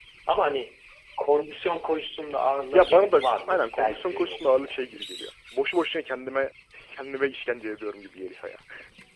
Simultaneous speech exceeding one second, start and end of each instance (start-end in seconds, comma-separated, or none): 2.7-4.9